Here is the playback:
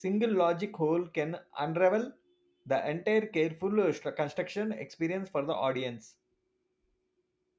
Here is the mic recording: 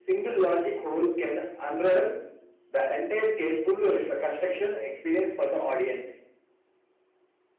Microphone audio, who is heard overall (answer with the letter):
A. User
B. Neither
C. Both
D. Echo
D